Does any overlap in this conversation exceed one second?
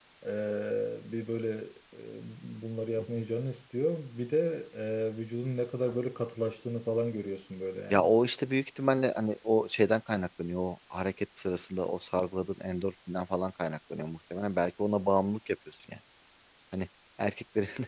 No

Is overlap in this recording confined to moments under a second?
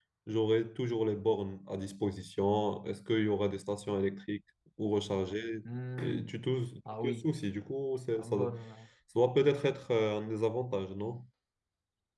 Yes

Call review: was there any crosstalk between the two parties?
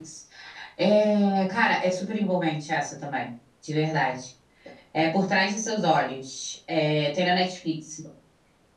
No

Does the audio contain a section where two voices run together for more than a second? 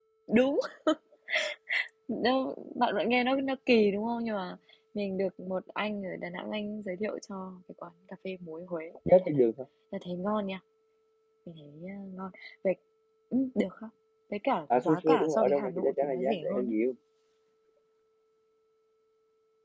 Yes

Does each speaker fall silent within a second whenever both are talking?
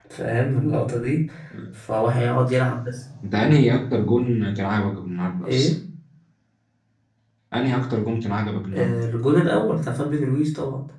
Yes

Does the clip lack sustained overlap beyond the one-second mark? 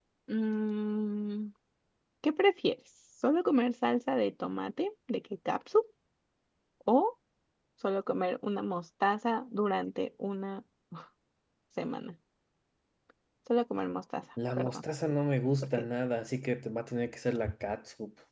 Yes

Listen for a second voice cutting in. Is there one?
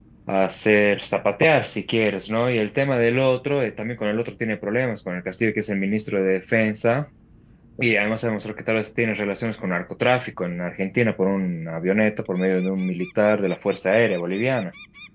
No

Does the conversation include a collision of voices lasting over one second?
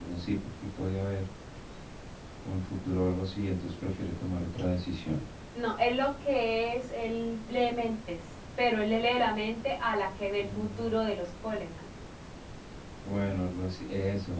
No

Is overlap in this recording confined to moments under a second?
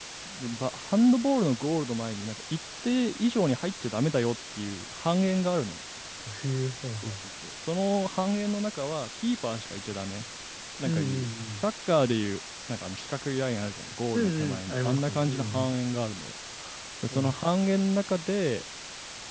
No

